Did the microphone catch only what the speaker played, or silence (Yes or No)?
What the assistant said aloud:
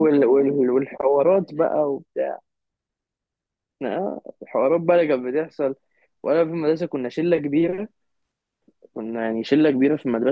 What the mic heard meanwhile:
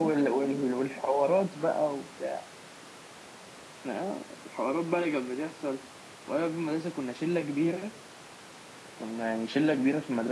Yes